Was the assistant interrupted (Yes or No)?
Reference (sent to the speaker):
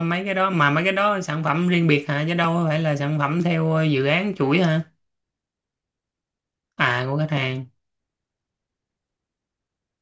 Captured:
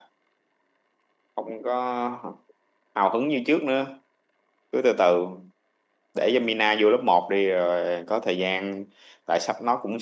Yes